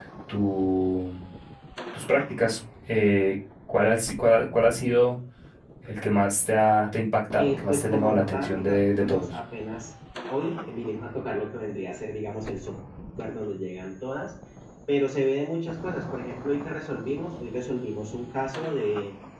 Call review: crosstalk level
present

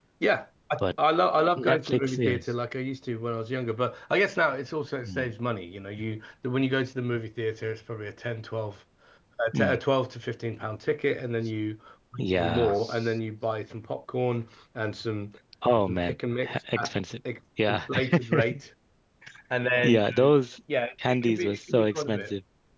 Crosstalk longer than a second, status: present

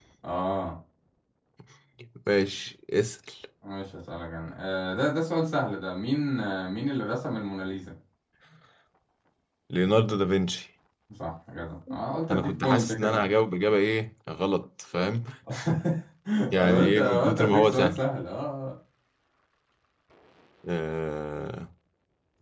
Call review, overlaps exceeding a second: present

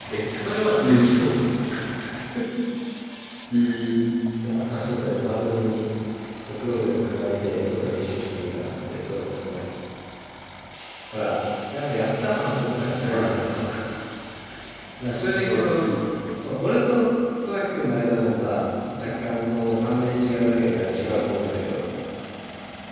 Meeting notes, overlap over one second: none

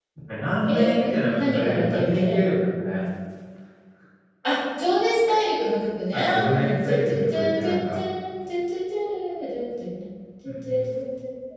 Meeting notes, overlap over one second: present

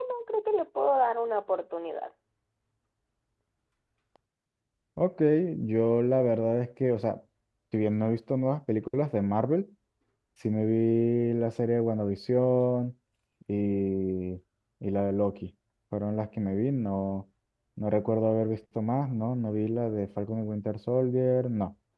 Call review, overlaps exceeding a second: none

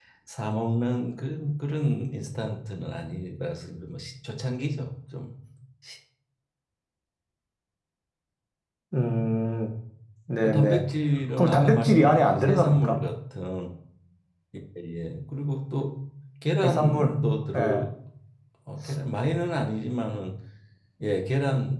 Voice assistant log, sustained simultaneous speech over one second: present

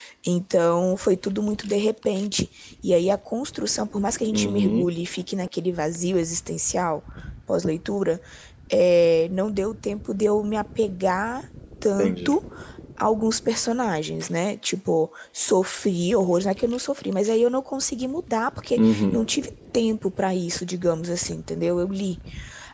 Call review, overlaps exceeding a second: none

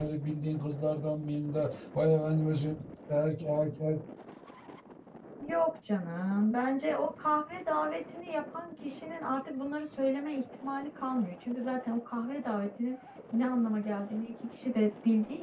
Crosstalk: none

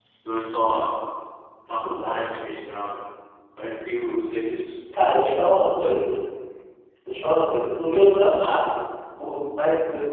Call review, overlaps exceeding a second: none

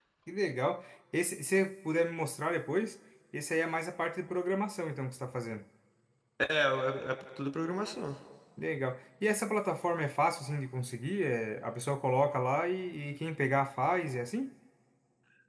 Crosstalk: none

